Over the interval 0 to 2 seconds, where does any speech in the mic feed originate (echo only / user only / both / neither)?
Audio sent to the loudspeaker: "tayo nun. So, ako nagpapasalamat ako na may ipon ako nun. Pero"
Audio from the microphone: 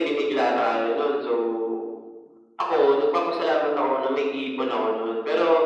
echo only